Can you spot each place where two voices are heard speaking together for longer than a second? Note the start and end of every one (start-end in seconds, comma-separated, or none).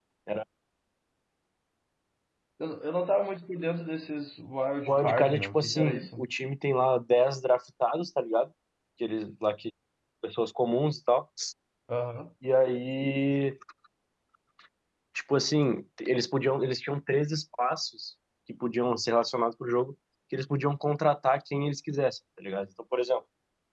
4.9-6.2